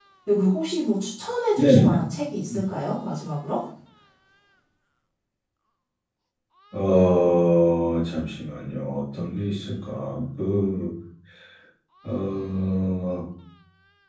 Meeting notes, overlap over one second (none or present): none